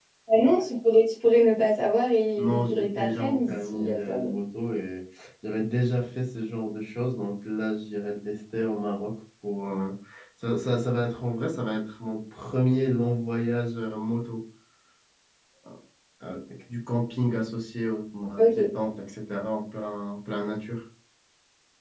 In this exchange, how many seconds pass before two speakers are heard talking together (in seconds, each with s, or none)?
2.4 s